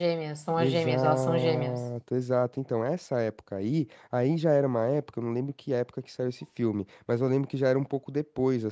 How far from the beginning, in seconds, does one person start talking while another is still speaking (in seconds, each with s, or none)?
0.6 s